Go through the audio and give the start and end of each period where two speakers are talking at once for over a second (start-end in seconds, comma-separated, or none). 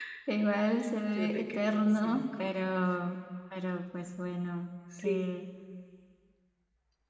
1.2-2.5